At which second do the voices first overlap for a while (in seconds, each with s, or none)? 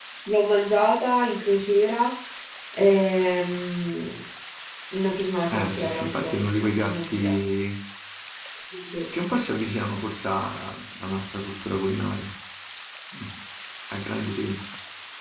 5.5 s